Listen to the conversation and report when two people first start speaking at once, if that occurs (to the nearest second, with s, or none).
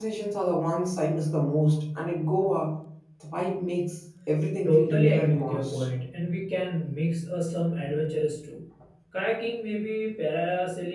5 s